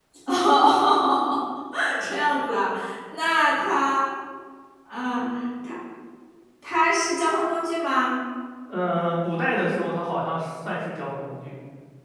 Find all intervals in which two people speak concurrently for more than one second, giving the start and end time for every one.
none

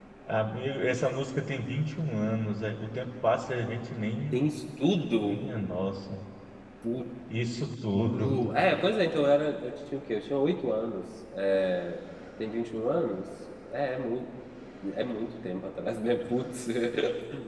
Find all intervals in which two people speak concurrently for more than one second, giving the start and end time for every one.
none

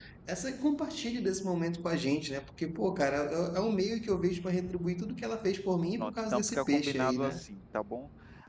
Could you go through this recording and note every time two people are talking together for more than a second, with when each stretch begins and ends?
6.0-7.3

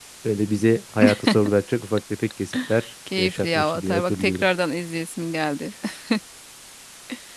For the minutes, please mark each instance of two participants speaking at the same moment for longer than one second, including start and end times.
3.2-4.5

